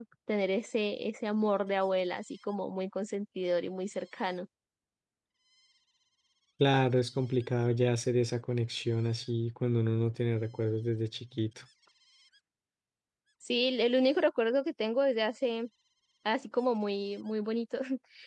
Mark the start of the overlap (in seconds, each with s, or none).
none